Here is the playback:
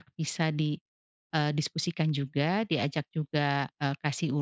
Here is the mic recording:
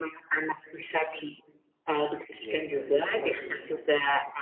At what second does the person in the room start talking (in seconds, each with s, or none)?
2.3 s